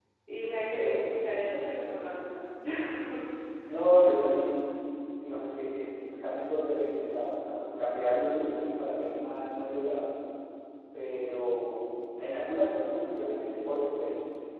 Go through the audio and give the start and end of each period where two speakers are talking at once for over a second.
none

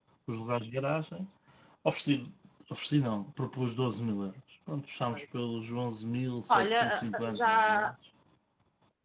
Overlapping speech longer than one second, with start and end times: 6.5-7.9

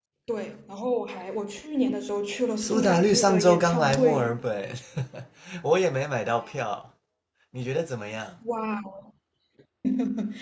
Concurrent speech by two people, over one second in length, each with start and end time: 2.6-4.3

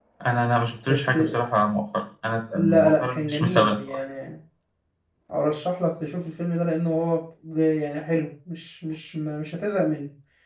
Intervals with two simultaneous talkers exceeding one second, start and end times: 2.5-3.8

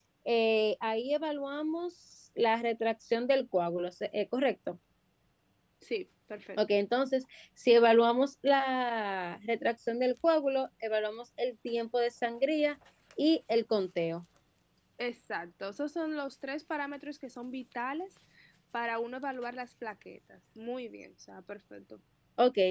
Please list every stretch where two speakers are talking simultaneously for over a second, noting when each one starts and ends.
none

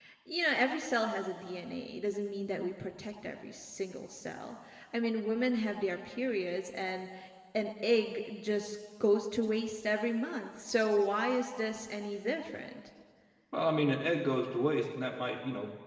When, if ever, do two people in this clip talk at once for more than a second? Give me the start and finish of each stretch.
none

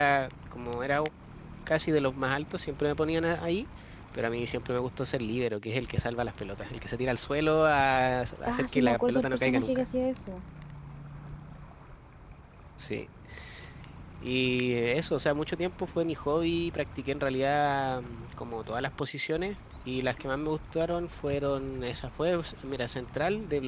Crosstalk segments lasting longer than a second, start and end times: 8.5-9.8

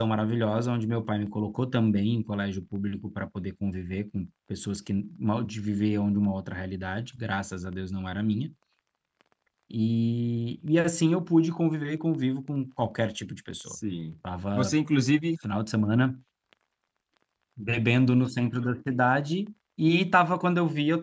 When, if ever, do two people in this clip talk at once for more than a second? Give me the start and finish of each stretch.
none

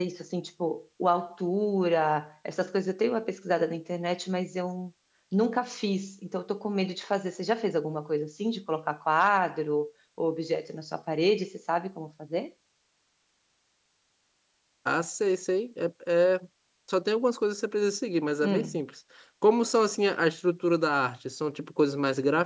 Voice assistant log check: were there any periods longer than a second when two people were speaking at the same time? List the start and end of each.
none

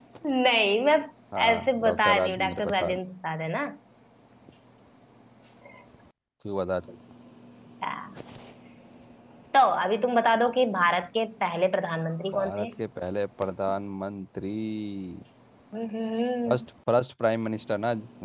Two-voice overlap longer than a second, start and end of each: 1.5-3.0

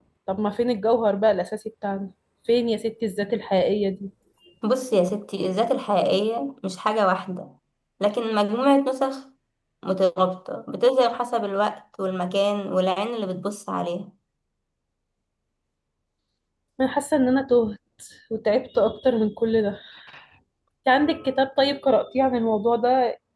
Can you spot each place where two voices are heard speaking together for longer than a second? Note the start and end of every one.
none

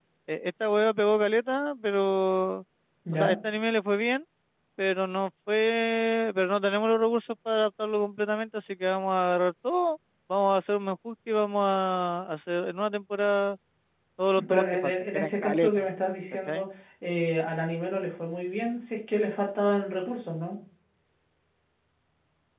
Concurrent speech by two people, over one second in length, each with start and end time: 14.5-15.9

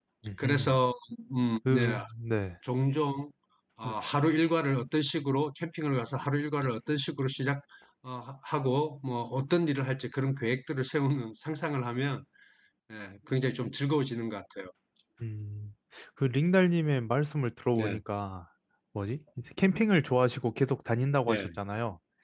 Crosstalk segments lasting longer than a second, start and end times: none

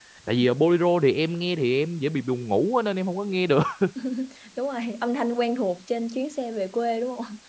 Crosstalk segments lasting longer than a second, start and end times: none

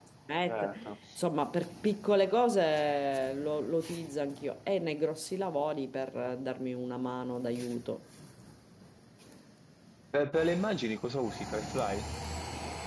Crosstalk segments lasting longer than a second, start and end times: none

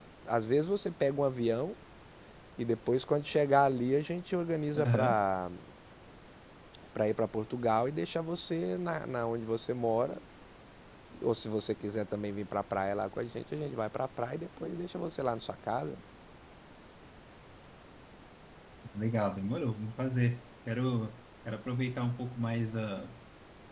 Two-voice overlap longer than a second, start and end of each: none

